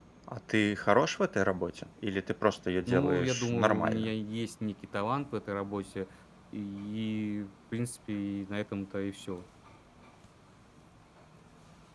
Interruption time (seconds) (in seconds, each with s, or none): 2.9 s